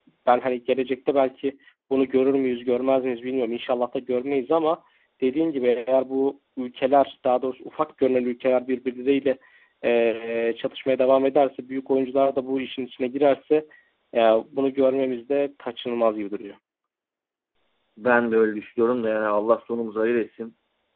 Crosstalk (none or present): none